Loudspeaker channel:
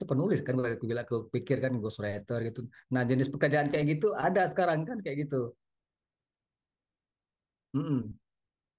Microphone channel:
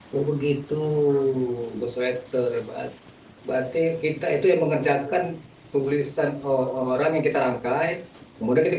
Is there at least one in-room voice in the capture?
Yes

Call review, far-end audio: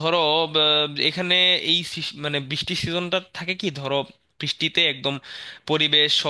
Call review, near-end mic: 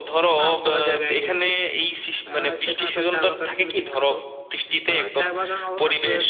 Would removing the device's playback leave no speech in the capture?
No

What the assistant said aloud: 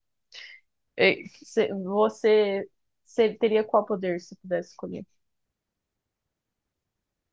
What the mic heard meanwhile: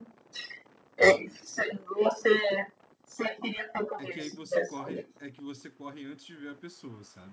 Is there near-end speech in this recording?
Yes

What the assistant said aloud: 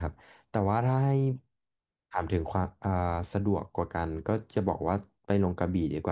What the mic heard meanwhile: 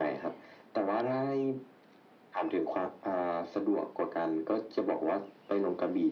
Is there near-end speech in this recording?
No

